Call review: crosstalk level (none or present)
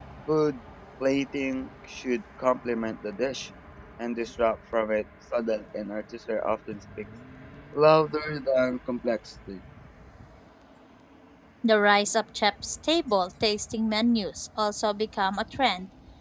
none